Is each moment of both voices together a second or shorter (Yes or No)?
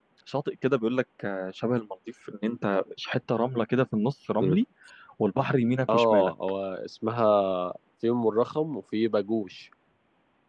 Yes